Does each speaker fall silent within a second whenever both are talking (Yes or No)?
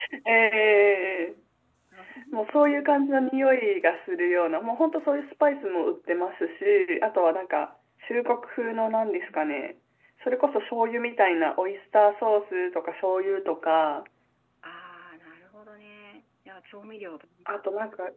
Yes